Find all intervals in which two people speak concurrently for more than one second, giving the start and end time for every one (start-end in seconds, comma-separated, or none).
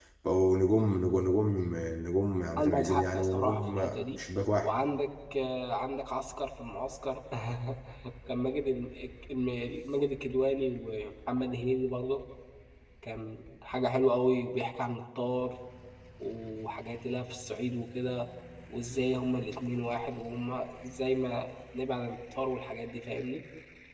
2.6-4.2